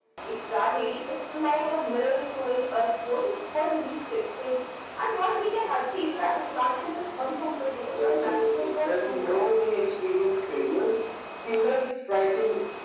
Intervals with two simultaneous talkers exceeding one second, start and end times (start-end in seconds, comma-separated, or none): 7.9-9.5